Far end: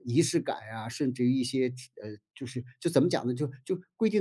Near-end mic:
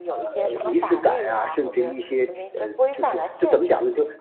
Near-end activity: present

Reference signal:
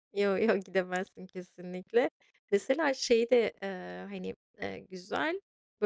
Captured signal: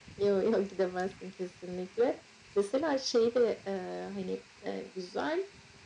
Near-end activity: none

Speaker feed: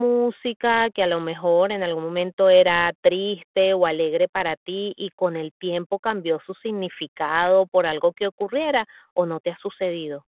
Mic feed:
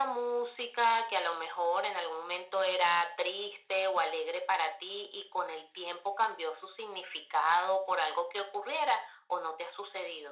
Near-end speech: none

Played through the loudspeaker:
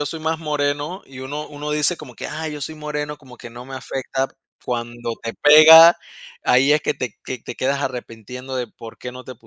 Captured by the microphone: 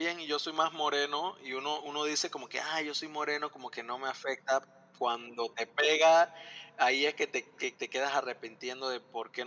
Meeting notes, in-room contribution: none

